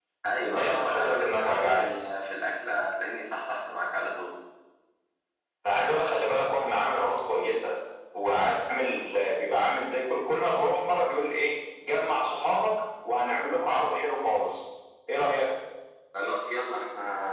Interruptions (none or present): present